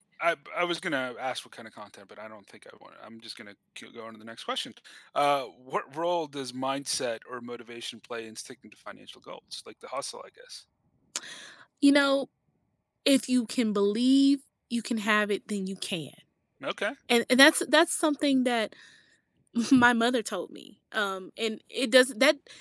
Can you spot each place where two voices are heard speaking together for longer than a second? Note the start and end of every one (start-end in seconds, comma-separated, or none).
none